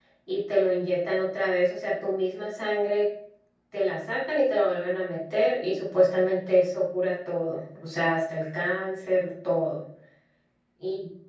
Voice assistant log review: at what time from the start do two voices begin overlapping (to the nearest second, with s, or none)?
none